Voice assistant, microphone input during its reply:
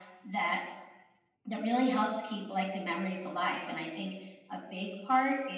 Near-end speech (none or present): none